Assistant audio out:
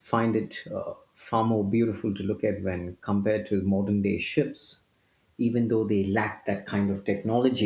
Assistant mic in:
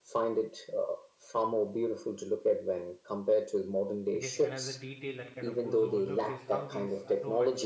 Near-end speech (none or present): present